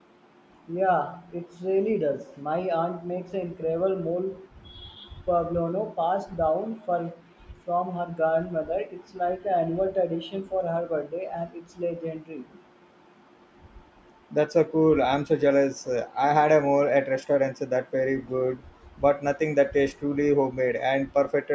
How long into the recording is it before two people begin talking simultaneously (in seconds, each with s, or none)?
none